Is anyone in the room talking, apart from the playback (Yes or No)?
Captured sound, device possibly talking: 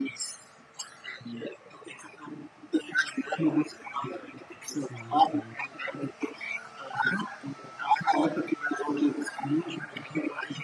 Yes